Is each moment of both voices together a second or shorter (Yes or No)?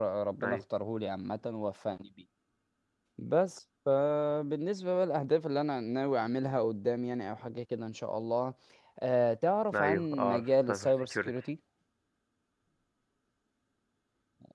No